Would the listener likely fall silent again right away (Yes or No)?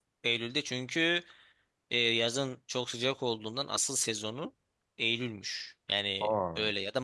Yes